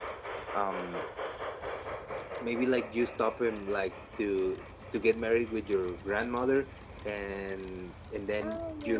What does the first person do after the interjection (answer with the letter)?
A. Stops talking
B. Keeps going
B